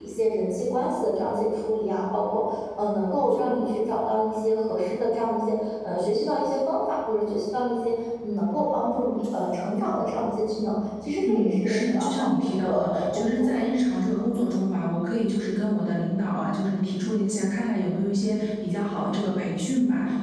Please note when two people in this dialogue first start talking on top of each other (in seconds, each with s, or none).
11.2 s